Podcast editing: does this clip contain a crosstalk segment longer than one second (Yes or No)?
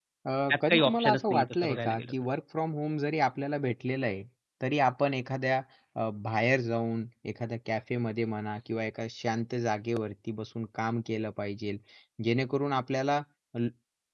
Yes